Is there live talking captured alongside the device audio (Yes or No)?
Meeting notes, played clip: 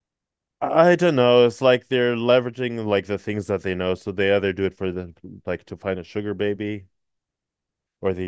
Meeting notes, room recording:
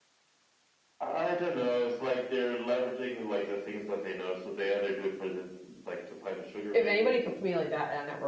Yes